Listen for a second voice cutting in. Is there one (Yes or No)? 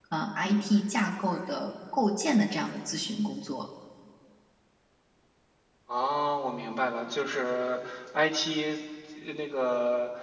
No